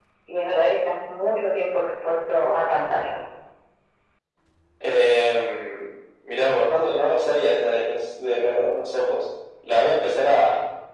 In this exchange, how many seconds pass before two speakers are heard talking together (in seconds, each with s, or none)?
none